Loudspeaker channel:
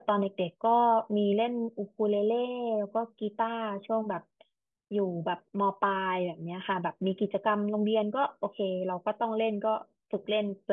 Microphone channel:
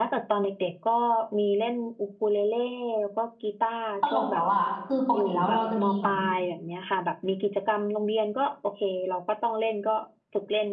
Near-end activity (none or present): present